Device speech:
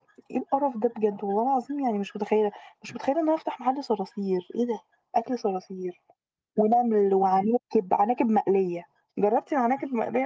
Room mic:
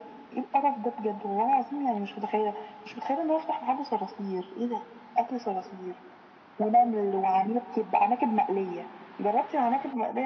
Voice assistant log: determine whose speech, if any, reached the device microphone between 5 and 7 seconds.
echo only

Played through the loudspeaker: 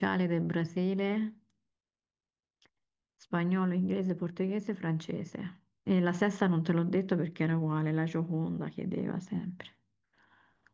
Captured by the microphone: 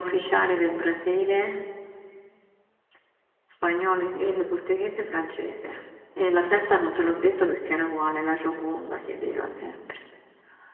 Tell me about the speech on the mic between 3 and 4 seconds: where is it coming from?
echo only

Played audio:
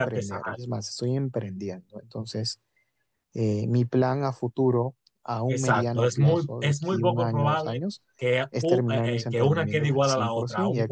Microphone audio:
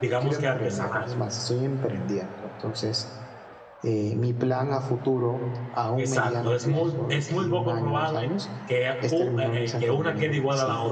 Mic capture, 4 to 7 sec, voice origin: echo only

